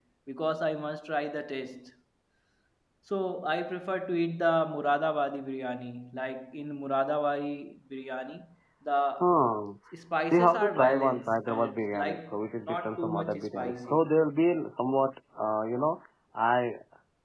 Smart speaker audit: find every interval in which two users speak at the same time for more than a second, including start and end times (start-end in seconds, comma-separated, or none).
10.2-14.1